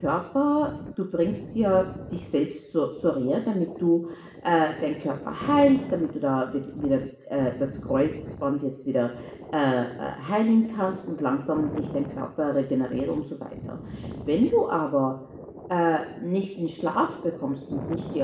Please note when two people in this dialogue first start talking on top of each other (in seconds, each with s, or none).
none